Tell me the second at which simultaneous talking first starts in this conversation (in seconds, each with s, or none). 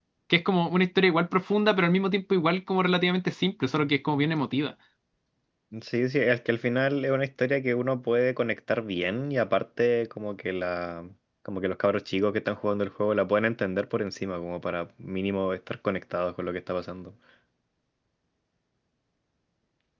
none